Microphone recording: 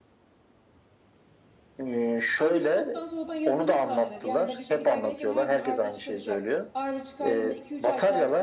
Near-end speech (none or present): present